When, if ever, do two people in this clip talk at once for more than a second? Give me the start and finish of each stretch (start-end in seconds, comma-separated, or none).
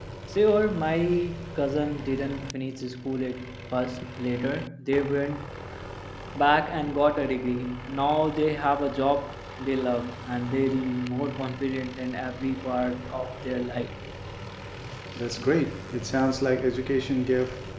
none